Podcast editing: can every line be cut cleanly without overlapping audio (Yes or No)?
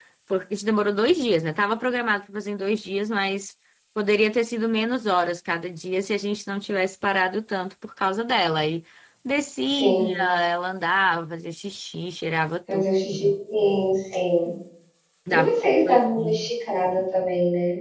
No